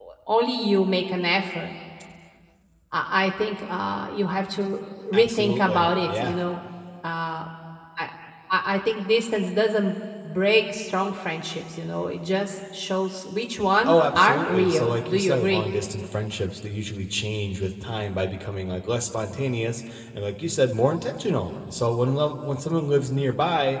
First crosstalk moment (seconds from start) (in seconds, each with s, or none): 5.1 s